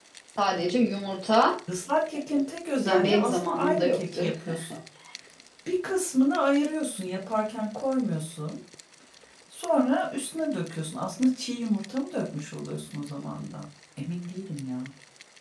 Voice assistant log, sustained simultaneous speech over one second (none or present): present